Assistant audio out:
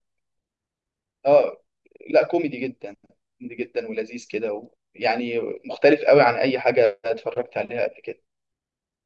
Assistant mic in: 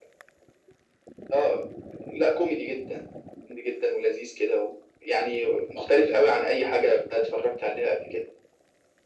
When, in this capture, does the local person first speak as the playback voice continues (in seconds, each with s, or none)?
none